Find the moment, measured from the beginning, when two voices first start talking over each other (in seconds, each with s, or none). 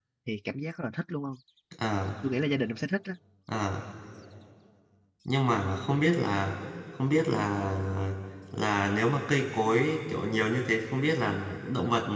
none